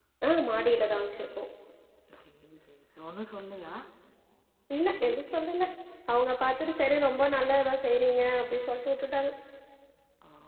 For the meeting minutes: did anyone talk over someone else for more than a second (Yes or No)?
No